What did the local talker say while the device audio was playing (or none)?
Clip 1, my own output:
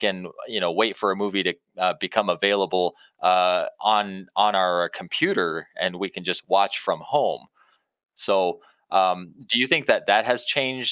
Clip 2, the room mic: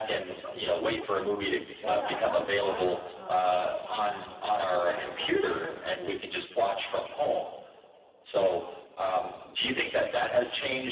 Yeah, I've watched um some some people that have kind of